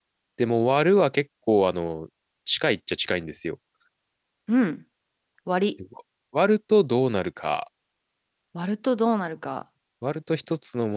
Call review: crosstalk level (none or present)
none